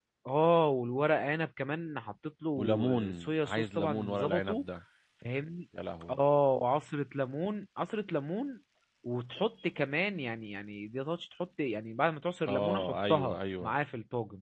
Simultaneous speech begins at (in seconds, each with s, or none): 2.6 s